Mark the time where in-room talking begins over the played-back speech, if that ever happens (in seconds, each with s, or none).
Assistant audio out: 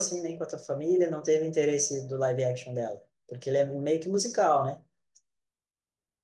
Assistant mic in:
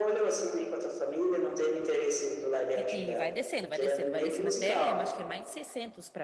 2.7 s